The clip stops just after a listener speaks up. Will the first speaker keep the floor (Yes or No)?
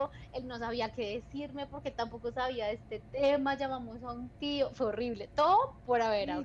No